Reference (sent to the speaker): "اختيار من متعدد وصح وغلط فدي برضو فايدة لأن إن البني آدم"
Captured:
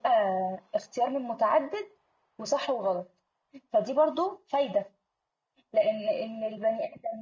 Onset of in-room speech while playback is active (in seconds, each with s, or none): none